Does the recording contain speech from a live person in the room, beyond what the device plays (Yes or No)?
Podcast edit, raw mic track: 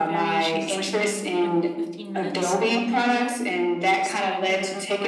Yes